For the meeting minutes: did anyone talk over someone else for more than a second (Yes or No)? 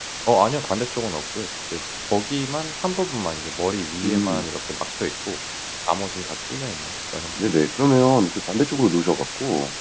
No